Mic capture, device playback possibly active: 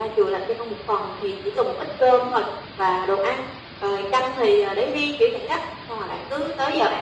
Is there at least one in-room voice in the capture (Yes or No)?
No